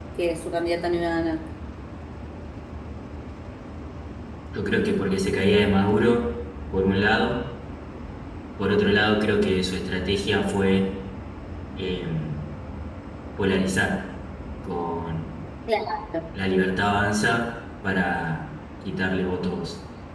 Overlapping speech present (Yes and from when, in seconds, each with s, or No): No